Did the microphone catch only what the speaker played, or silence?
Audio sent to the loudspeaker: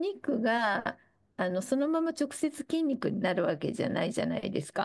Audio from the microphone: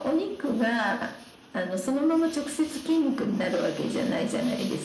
Yes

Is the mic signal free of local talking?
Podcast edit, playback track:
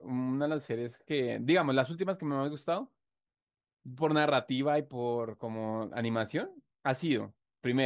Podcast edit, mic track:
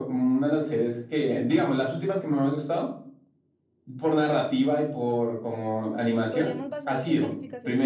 No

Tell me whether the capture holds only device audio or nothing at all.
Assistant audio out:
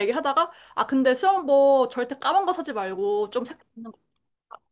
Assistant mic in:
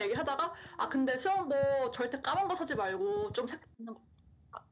Yes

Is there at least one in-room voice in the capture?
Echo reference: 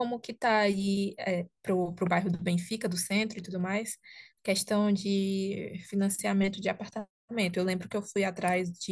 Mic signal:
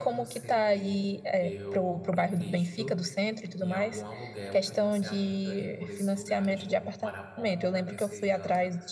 Yes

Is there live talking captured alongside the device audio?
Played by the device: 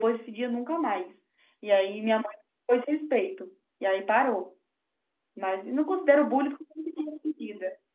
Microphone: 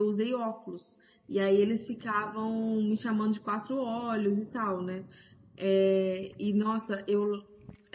Yes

